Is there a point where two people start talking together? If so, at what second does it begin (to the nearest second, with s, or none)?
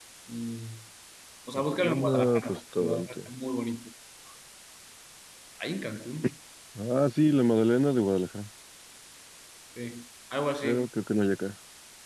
2 s